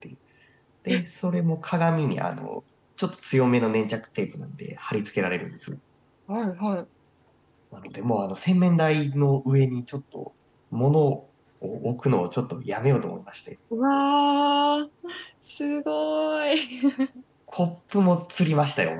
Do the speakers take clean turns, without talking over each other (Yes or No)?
Yes